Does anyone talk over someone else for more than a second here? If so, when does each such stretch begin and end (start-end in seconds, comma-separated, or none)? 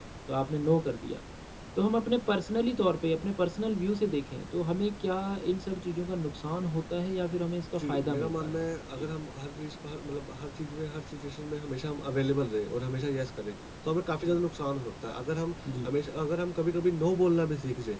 7.8-9.1